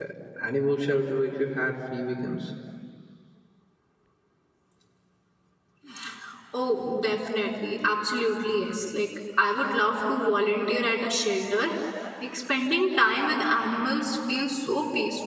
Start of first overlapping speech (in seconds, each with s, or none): none